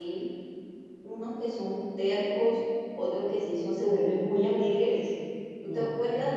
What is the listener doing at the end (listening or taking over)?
listening